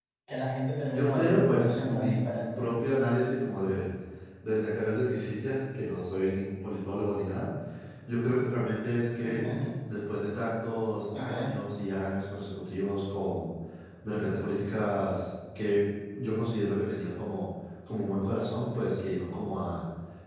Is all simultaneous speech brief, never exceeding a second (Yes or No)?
No